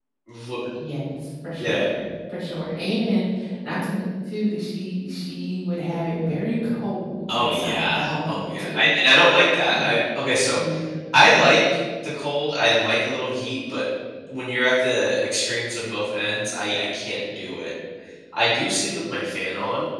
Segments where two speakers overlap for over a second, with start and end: 7.3-8.9

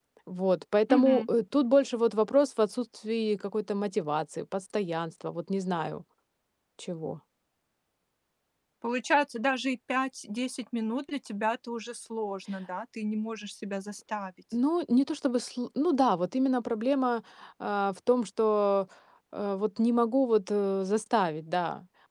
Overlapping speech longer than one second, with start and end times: none

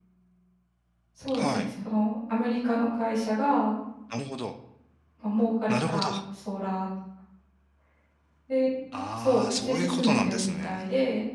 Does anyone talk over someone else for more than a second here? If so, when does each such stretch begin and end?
9.2-10.8

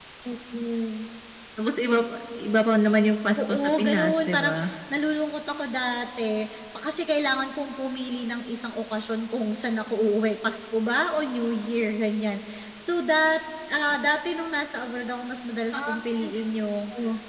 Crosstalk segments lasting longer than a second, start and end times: 3.4-4.7

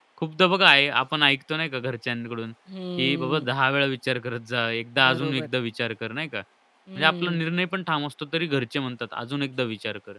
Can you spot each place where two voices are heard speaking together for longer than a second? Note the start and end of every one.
none

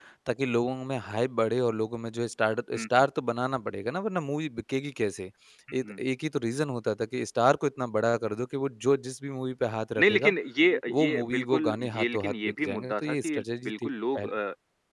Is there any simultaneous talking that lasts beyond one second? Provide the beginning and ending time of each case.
10.9-14.3

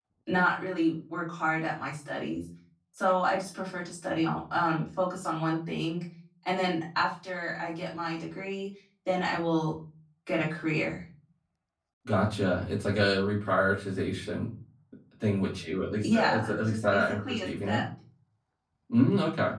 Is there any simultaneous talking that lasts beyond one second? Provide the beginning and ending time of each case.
16.0-17.8

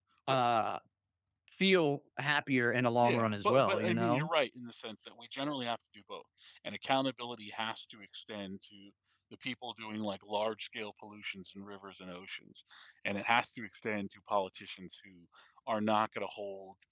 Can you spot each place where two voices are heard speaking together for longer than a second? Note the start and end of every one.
3.0-4.3

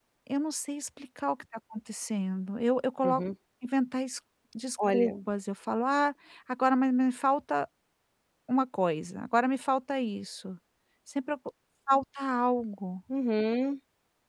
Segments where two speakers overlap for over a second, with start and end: none

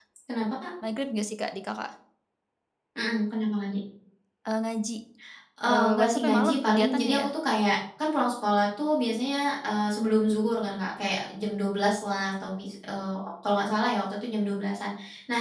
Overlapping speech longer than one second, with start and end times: 5.7-7.3

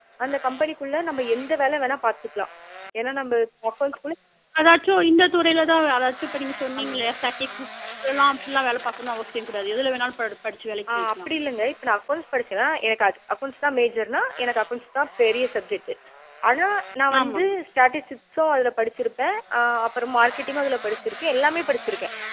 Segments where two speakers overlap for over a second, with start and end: none

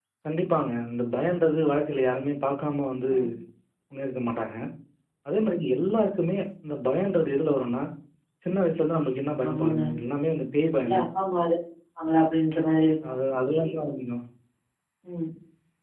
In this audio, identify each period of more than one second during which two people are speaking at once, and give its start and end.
none

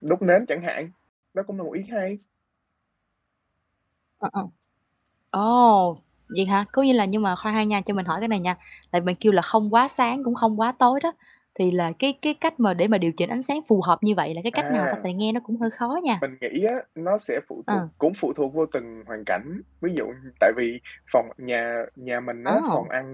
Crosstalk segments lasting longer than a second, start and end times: none

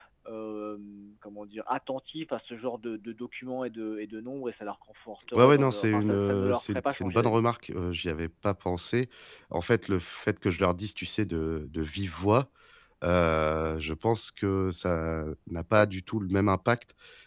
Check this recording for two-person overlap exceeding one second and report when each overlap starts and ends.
5.4-7.4

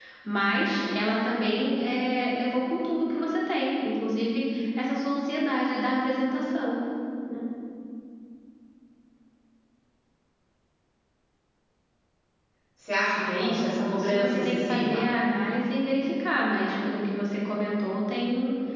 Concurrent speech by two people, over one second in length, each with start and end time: 13.4-15.1

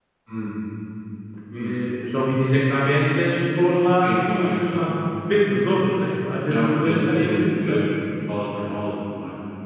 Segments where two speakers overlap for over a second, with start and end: 6.4-7.8

